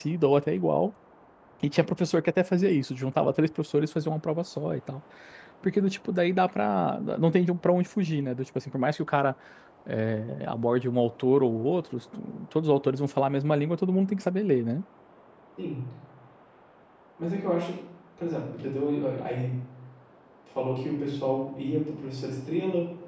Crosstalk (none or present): none